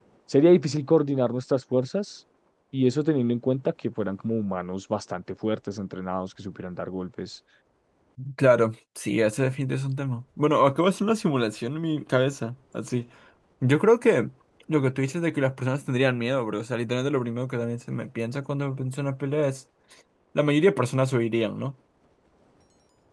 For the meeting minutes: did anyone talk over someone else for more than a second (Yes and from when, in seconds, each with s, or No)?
No